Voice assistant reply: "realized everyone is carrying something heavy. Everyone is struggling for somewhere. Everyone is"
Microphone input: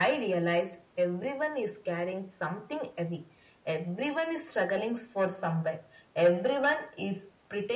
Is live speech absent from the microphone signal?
Yes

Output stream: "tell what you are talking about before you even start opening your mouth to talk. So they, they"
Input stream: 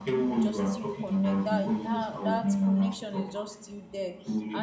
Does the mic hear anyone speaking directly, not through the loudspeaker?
Yes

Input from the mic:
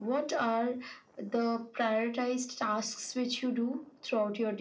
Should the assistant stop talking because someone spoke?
No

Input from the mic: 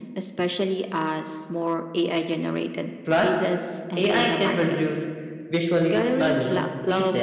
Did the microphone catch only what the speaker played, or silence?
No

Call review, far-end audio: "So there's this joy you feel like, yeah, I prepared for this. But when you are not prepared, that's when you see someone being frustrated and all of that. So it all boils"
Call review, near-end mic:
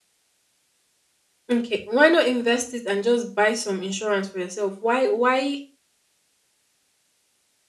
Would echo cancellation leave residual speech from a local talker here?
Yes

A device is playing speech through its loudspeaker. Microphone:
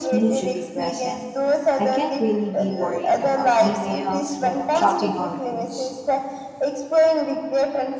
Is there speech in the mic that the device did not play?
Yes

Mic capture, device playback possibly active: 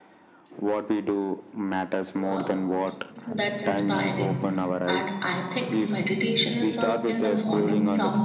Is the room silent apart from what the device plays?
No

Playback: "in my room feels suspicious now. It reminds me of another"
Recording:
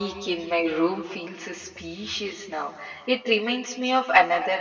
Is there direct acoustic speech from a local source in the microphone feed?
No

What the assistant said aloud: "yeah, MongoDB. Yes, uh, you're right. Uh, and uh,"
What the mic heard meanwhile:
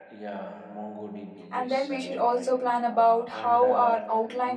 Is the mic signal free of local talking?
No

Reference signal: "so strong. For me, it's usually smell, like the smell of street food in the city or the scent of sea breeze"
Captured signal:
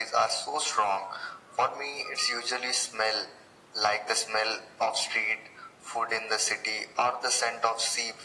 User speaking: No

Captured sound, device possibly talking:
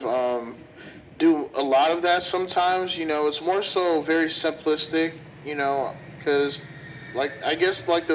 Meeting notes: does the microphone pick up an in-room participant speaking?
No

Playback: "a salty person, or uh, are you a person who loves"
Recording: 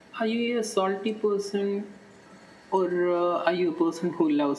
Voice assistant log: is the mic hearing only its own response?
Yes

